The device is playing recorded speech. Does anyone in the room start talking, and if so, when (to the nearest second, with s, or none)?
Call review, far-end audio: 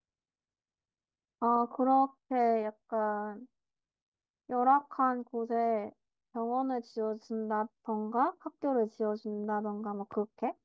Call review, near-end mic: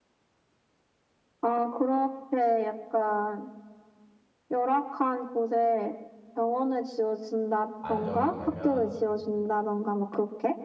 8 s